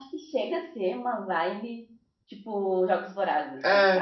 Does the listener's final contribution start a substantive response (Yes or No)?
Yes